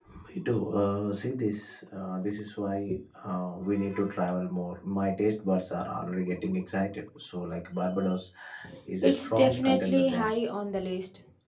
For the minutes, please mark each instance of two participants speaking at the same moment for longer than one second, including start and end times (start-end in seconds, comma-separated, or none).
9.0-10.3